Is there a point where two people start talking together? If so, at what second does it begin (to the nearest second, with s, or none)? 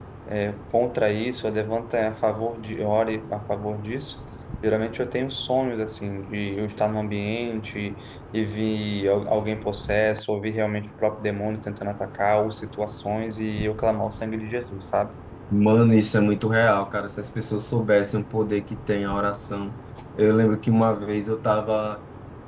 none